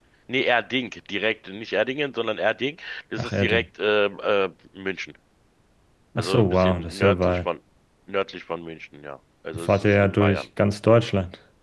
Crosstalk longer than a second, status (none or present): present